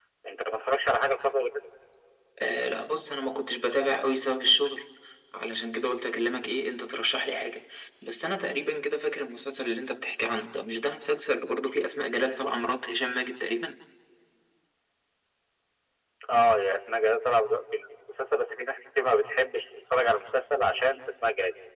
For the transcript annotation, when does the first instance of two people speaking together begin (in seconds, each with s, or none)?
none